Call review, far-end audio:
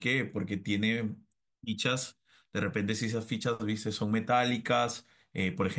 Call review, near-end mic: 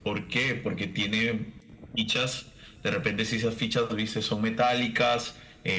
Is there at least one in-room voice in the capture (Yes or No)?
No